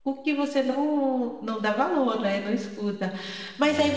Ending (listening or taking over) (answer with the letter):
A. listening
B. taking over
A